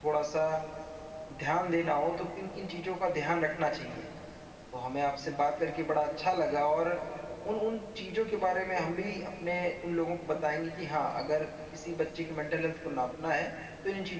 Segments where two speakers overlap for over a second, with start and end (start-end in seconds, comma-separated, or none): none